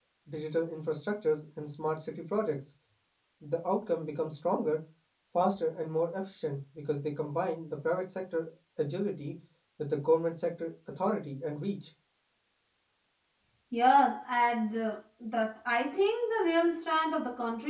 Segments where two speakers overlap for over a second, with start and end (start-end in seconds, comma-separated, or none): none